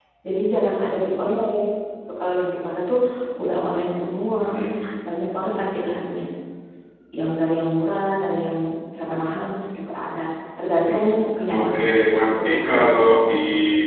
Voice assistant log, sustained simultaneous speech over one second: present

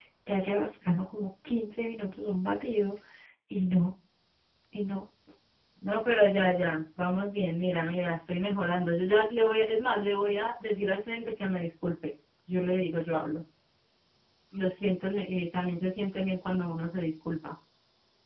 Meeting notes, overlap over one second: none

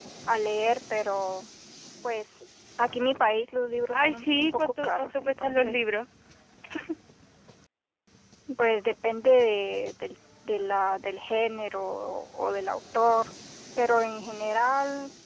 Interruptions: present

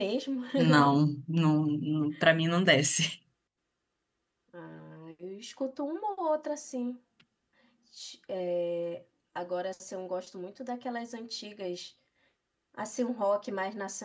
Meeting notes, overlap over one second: none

